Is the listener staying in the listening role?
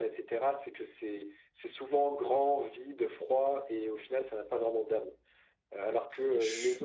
Yes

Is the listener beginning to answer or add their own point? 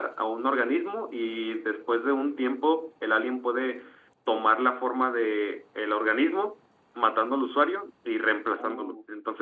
No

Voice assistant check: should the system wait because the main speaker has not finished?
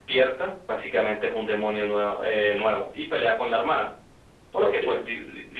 Yes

